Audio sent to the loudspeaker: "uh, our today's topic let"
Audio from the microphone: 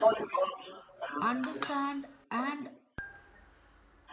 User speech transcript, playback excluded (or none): understand, and